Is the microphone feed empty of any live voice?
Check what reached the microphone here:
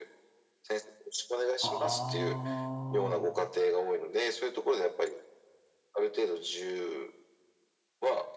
No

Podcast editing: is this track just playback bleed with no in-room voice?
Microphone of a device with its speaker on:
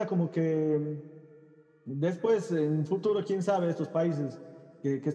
Yes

